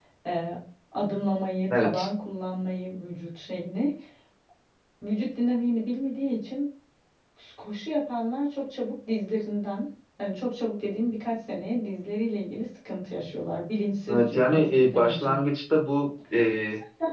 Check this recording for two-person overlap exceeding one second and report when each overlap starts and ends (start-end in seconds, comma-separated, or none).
14.1-15.4